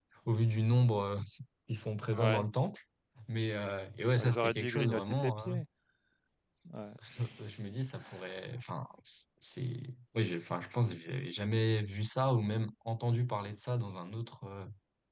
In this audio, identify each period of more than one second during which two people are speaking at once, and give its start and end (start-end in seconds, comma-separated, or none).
4.2-5.5